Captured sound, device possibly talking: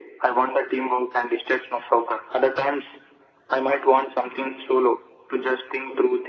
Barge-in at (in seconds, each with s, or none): none